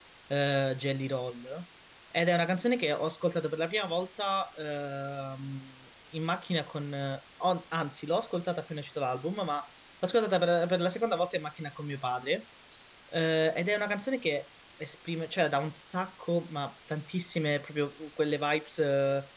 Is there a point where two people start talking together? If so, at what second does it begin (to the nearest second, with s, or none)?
none